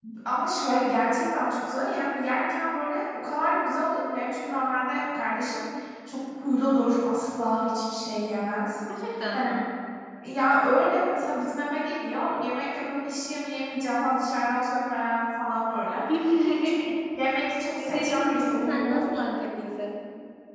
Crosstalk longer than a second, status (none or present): present